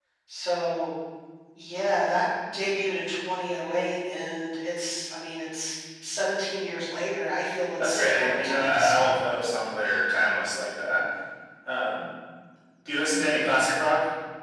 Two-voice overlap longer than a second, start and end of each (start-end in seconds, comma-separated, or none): 7.8-9.2